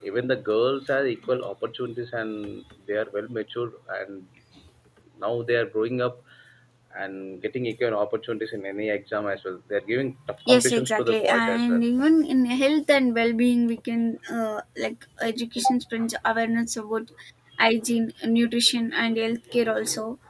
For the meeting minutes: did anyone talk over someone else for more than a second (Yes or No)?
Yes